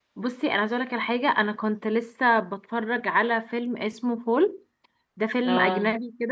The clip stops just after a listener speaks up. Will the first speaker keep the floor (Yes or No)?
Yes